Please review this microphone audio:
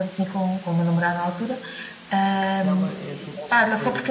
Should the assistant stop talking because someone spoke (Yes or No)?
Yes